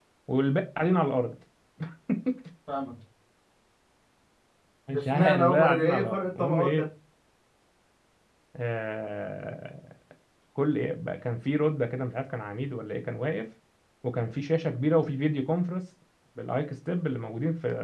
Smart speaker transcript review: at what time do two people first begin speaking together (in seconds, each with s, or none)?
4.9 s